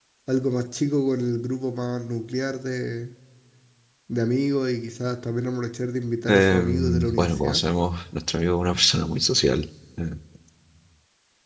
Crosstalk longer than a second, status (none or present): present